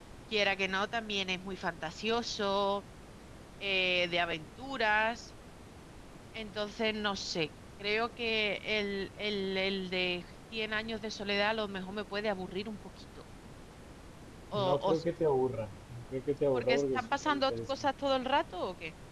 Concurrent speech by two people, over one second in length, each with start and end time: 16.5-17.9

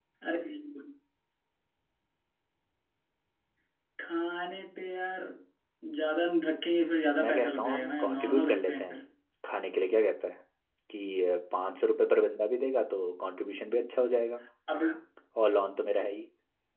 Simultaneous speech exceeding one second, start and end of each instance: 7.2-9.0

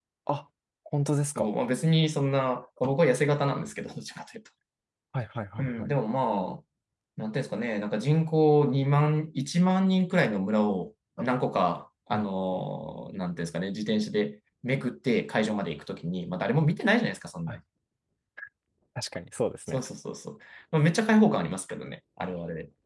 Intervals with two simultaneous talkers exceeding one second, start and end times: none

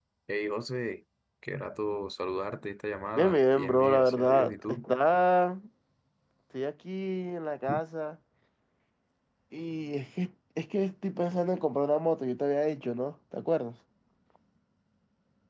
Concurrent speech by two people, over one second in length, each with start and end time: 3.2-4.8

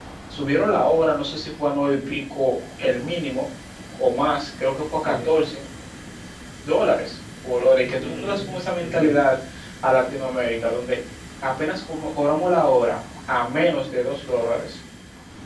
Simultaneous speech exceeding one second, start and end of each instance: 7.8-9.1

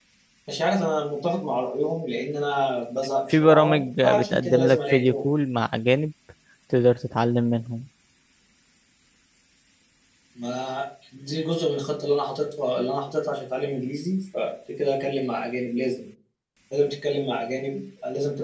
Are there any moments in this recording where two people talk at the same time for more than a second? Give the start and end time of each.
3.3-5.1

